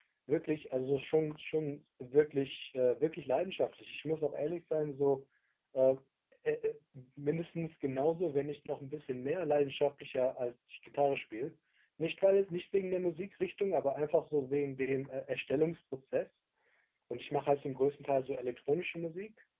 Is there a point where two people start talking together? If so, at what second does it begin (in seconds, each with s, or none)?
none